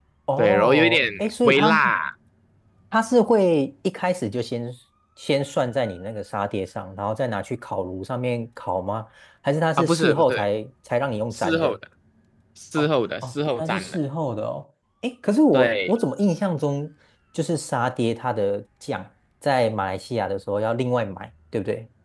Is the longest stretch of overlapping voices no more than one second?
No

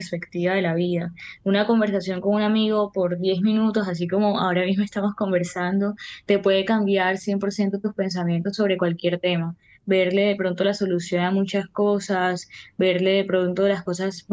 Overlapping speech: No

